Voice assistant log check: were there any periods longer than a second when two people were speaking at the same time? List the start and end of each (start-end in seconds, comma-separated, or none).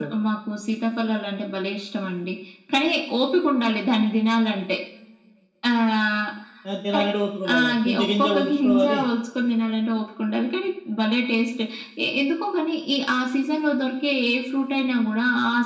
7.5-9.0